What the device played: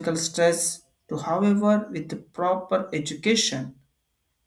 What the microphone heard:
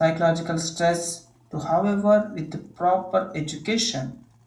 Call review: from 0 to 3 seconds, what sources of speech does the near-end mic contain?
echo only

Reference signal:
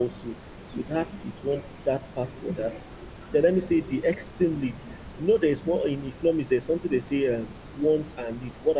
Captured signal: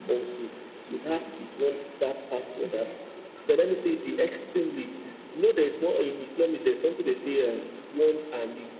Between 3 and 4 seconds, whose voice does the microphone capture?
echo only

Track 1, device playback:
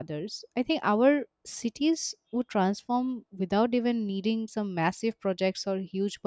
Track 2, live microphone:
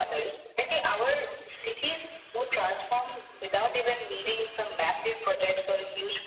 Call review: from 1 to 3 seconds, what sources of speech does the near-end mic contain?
echo only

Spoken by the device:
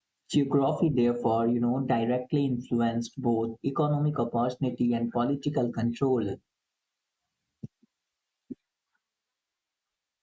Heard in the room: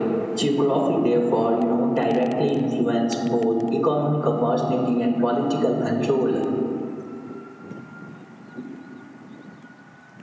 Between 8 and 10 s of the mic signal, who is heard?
neither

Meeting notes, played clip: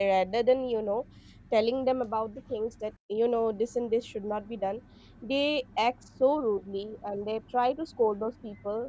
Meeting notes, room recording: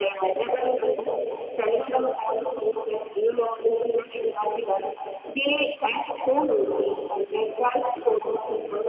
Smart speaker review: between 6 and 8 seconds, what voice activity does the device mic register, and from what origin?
echo only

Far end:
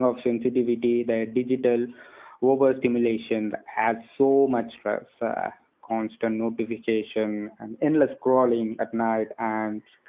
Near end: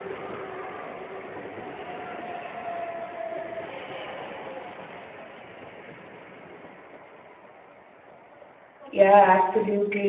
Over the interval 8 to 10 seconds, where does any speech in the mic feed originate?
user only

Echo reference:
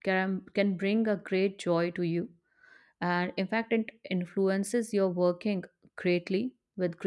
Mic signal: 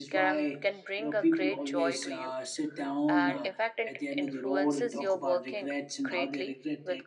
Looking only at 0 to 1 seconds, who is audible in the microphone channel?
both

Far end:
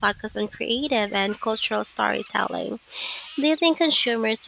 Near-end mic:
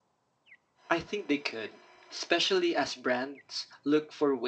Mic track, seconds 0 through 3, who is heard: user only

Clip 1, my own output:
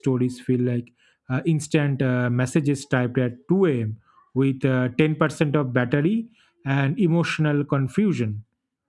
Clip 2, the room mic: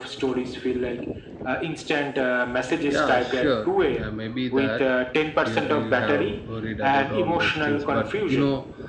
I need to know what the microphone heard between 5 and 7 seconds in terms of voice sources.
both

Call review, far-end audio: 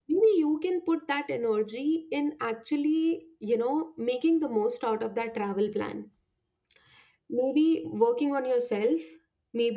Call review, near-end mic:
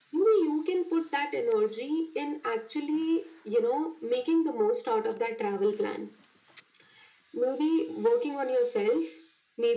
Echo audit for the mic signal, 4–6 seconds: echo only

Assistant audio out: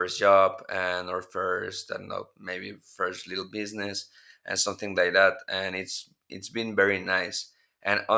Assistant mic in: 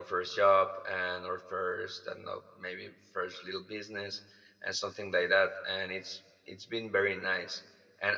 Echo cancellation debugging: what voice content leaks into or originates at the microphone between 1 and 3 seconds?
echo only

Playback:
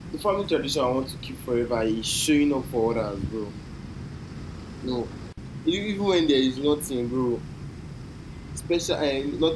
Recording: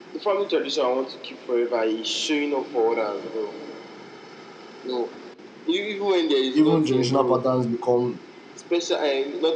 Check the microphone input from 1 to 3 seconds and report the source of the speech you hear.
echo only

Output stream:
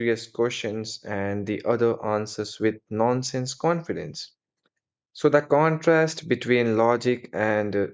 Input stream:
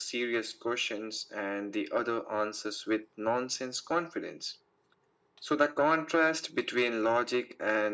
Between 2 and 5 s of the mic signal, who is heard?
echo only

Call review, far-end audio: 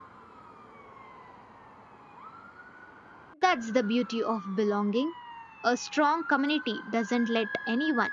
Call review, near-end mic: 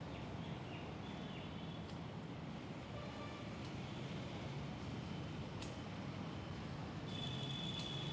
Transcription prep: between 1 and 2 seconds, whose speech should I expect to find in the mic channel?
neither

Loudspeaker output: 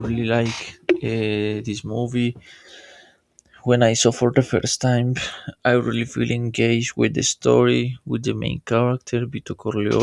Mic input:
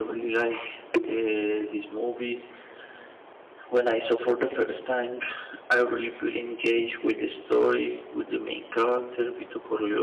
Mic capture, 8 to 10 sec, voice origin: echo only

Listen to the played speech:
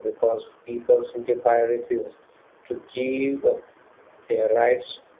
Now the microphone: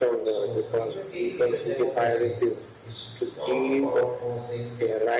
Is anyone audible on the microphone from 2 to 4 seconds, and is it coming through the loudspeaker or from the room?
both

